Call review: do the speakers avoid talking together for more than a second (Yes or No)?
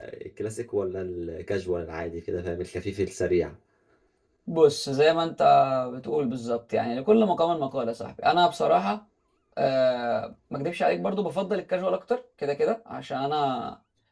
Yes